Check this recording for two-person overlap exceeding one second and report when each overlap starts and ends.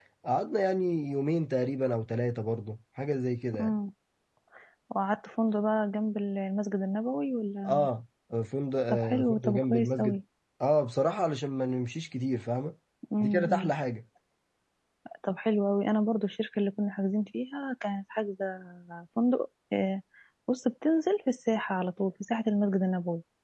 8.9-10.2

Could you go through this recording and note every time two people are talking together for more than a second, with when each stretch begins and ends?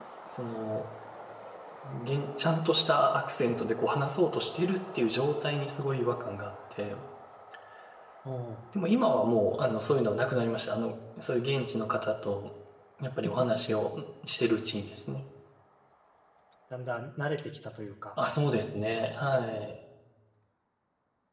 none

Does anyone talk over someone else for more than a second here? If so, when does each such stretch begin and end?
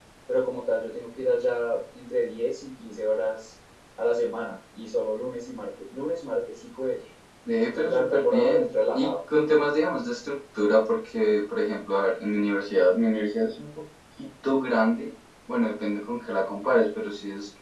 7.6-9.2

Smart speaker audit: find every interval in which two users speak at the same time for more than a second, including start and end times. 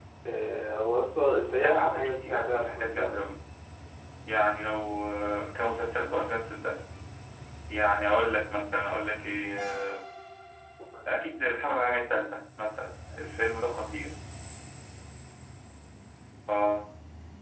1.6-3.2

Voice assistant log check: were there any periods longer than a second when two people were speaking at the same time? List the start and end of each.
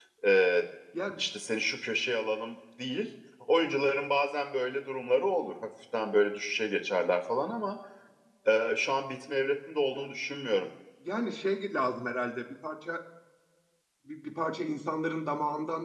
none

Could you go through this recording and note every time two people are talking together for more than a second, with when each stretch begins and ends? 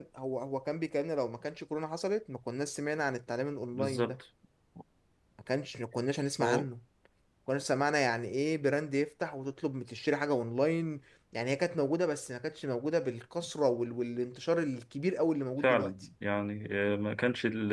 none

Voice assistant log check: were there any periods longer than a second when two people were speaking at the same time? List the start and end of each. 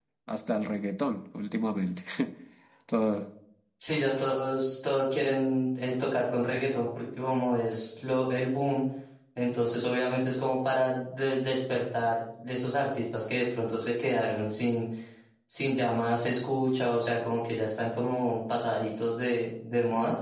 none

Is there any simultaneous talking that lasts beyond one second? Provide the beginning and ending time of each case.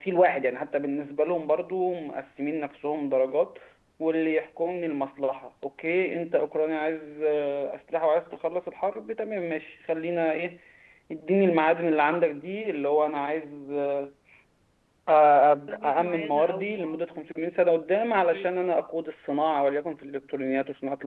15.7-17.0

